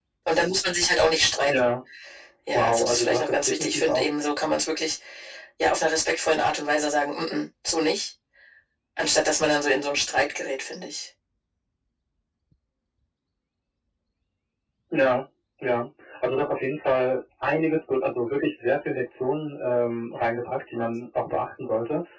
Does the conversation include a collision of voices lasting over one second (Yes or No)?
Yes